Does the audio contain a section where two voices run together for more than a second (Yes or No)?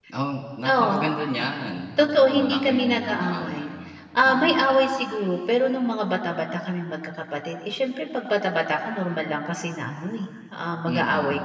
Yes